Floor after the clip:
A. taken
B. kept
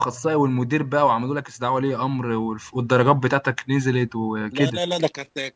A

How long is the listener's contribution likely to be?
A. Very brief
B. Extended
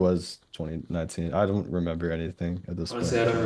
B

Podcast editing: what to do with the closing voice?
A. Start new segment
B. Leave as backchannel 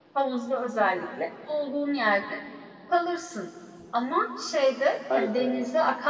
B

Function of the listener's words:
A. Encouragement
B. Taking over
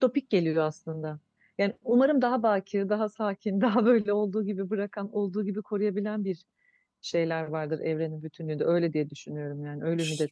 B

